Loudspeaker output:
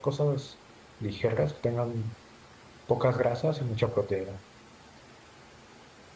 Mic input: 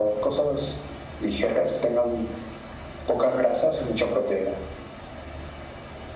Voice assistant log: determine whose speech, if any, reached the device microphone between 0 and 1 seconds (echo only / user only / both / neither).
echo only